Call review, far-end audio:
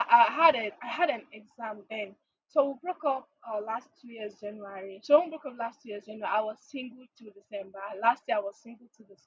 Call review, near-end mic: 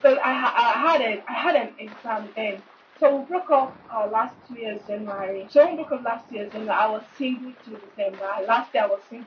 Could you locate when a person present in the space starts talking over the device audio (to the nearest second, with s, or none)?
none